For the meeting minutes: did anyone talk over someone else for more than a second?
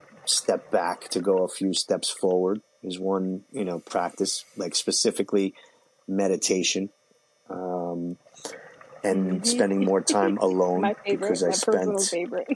Yes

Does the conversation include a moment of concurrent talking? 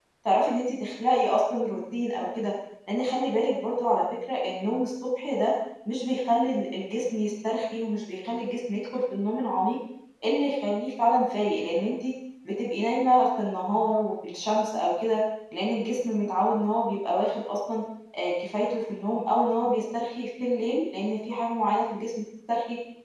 No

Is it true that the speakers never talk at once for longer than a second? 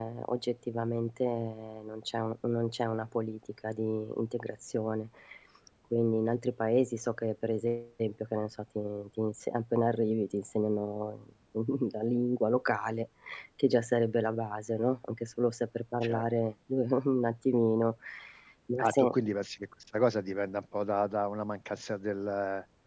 Yes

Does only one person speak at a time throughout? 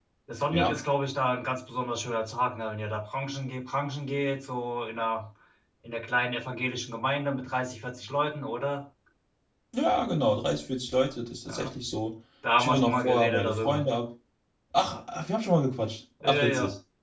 No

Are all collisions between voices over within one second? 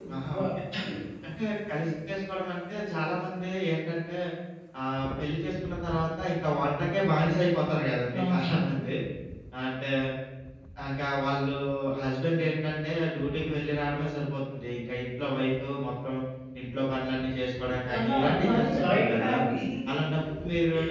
No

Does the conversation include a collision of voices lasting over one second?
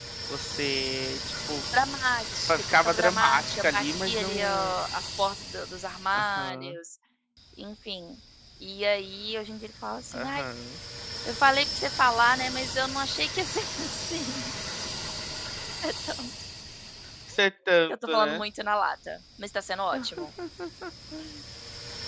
Yes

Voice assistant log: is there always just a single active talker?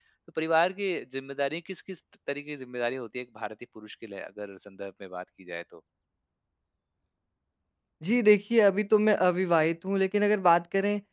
Yes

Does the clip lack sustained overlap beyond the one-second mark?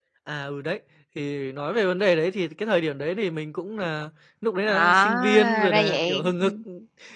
No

